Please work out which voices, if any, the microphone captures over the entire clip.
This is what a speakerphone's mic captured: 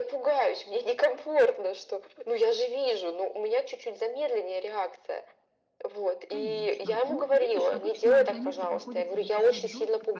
both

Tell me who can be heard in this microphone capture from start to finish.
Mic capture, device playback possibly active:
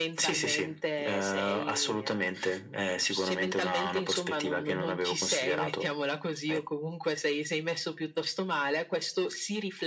echo only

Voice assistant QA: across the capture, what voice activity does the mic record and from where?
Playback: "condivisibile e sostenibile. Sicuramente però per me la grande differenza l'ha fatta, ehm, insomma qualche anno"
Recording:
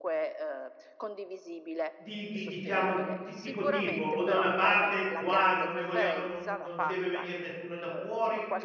both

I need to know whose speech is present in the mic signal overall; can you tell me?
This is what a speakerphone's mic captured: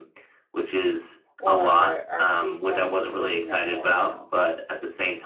both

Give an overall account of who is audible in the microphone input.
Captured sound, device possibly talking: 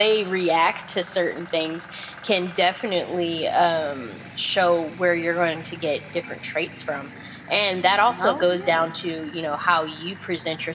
both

